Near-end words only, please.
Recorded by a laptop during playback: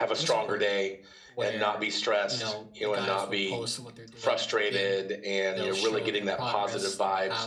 none

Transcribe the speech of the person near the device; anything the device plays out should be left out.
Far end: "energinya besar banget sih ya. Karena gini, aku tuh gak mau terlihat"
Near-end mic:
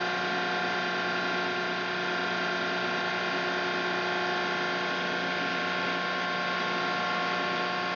none

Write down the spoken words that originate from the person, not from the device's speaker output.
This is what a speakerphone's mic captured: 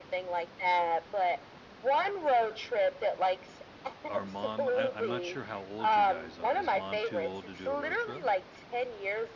Are mom I I'm not sure how old you guys are. Is mom too old to do a road trip?

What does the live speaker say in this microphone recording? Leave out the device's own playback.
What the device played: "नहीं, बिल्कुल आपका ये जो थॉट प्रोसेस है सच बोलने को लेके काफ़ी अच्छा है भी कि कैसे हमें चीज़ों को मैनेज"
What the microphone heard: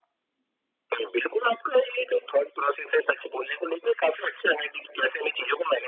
none

